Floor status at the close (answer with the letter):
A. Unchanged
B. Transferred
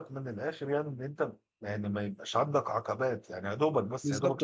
B